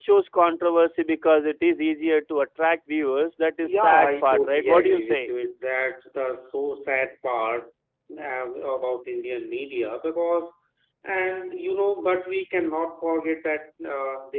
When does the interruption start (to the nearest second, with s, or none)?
4 s